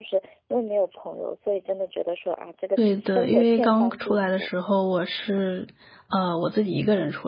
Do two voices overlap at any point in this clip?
Yes, from 2.8 s

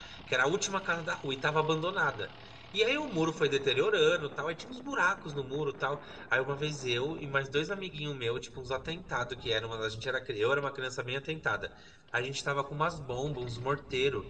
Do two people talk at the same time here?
No

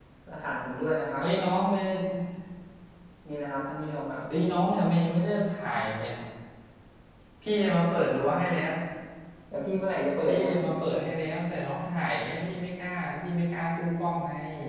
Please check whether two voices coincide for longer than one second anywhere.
No

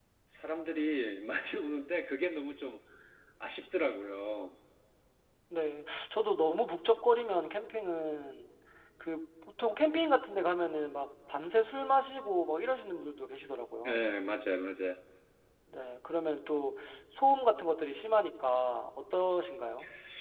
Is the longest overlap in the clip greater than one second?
No

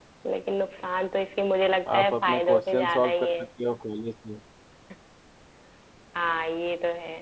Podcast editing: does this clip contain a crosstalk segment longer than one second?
Yes, from 1.9 s

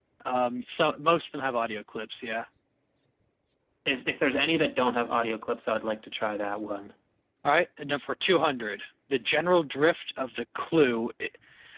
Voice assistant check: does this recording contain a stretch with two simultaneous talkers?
No

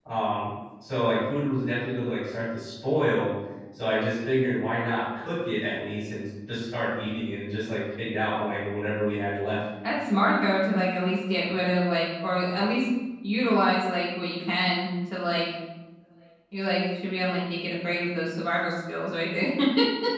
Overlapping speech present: No

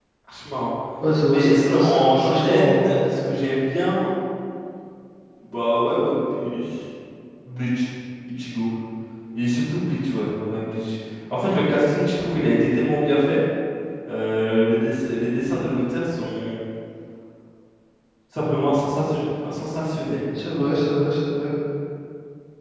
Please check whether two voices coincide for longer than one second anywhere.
Yes, from 1.3 s

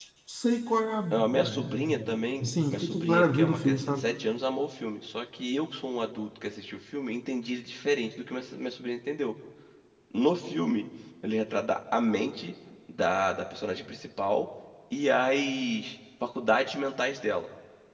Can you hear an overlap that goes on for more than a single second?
Yes, from 1.1 s

